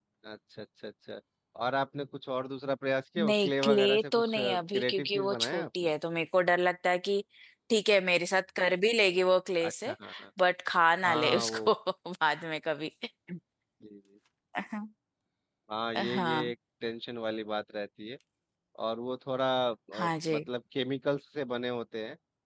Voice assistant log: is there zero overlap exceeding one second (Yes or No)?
No